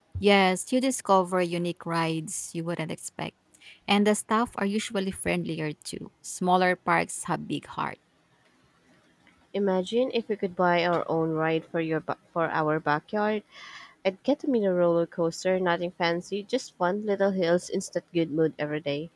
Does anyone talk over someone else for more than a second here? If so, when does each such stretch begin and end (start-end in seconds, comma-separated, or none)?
none